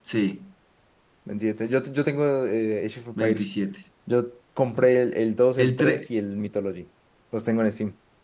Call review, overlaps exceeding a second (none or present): none